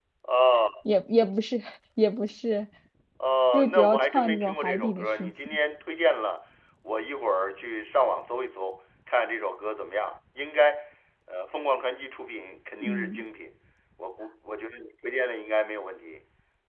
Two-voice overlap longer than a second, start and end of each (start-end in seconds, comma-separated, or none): 3.5-5.3